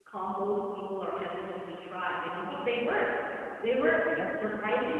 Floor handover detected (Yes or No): No